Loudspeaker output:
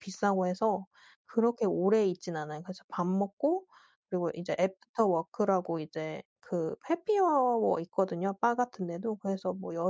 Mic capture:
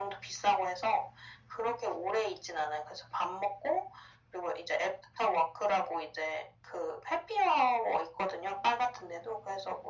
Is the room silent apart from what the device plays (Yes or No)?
Yes